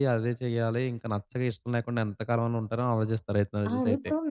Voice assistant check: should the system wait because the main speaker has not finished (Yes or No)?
No